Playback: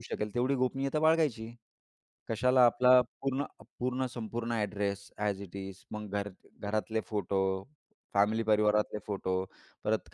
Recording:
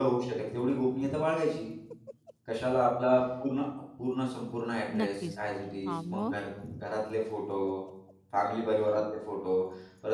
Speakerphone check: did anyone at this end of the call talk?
Yes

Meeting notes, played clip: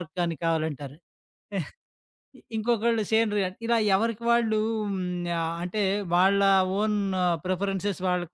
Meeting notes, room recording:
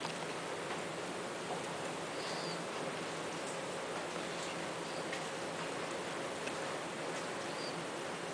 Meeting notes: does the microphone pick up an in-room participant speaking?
No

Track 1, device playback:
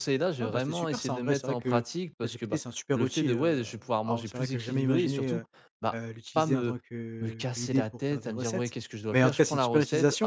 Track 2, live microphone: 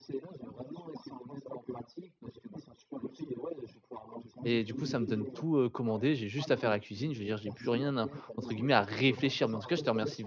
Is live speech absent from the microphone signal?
No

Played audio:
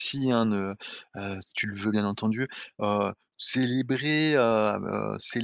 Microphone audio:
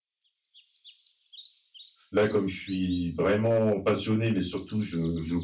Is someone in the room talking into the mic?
Yes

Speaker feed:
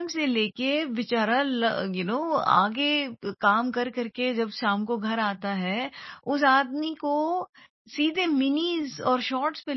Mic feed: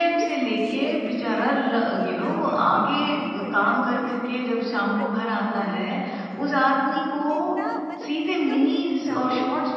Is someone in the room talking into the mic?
Yes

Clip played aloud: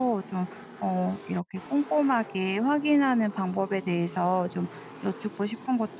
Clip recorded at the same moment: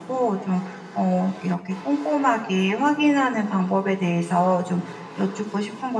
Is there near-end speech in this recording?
No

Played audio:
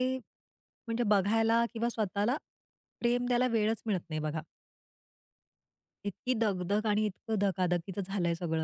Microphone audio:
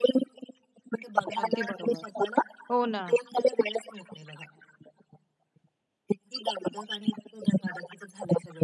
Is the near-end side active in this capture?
Yes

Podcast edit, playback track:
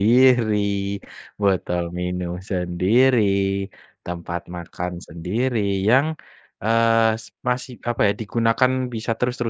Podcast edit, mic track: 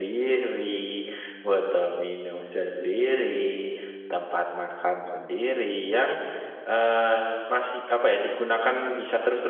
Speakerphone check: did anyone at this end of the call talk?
No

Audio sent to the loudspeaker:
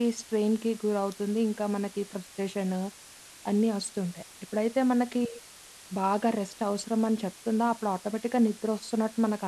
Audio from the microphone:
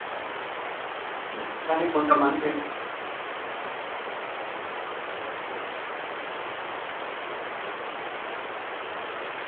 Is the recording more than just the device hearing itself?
Yes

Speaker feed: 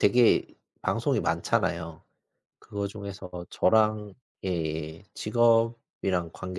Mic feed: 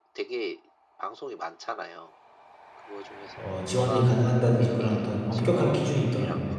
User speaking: Yes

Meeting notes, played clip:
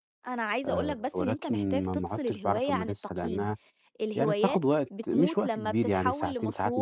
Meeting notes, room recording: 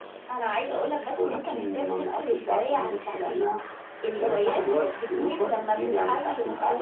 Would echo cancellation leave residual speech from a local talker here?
No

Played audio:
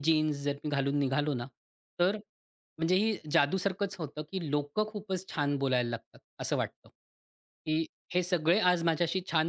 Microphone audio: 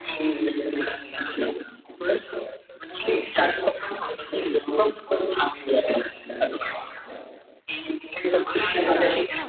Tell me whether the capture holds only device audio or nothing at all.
No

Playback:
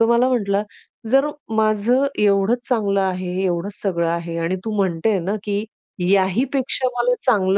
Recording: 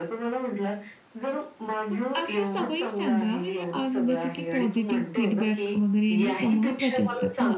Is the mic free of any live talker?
No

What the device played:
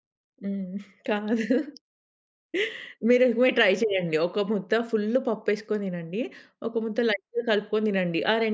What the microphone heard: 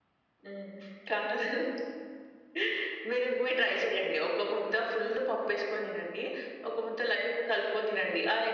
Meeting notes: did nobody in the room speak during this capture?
Yes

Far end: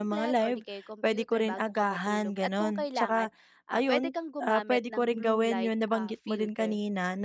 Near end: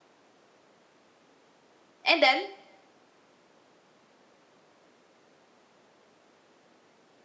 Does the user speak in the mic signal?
Yes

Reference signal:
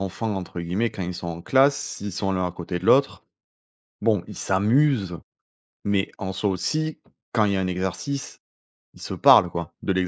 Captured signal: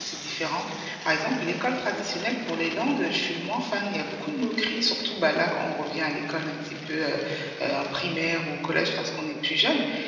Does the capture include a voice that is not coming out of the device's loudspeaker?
Yes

